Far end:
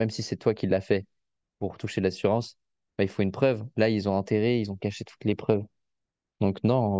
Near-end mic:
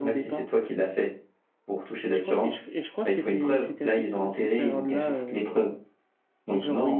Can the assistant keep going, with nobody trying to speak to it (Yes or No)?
No